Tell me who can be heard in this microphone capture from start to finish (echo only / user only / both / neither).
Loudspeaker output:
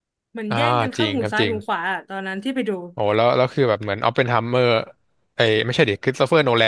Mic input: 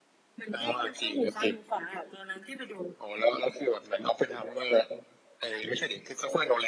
echo only